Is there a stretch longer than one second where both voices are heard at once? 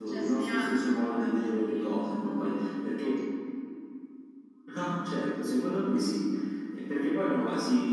Yes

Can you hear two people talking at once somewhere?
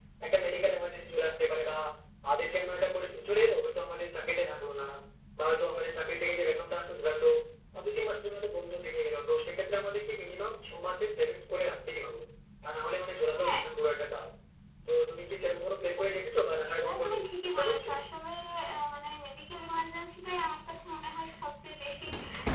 Yes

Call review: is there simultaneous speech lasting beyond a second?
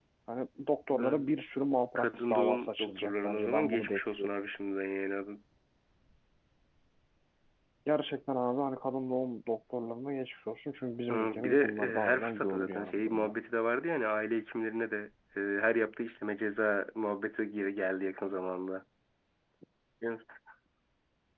Yes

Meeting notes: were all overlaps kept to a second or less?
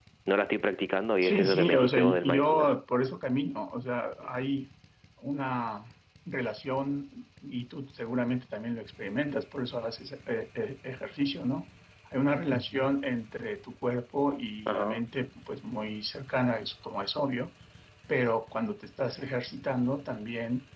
No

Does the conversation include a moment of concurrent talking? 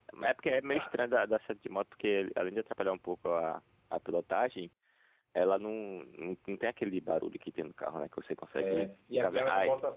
Yes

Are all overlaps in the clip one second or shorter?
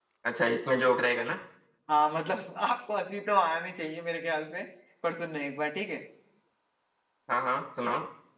Yes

